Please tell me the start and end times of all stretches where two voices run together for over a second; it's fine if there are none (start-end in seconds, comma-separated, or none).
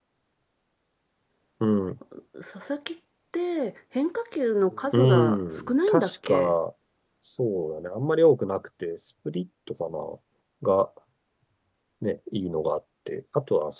4.9-6.5